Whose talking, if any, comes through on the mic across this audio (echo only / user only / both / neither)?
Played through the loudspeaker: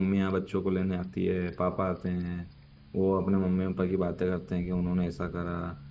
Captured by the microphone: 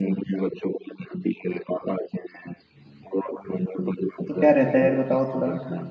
both